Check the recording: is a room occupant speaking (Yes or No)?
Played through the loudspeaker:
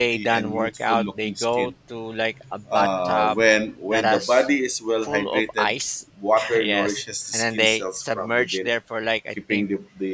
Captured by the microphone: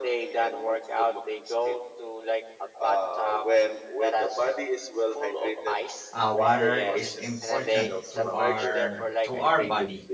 Yes